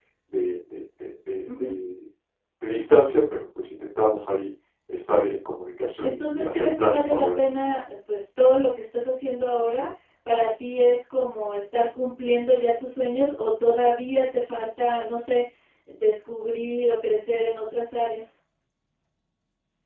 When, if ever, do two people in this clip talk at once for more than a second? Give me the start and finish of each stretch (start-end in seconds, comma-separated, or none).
6.0-7.4